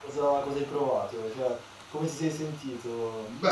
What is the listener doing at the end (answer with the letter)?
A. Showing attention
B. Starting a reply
B